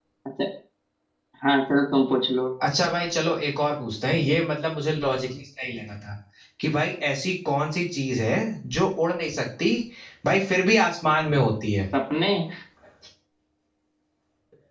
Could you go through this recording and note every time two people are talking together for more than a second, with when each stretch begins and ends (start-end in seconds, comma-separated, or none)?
none